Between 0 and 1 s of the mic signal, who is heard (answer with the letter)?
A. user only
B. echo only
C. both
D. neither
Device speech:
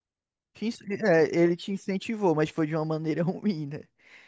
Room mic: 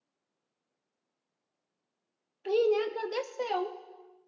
D